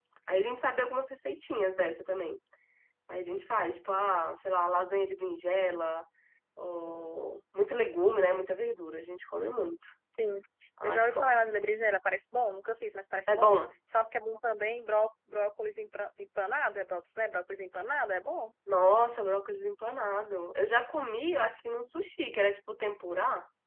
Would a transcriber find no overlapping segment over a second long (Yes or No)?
Yes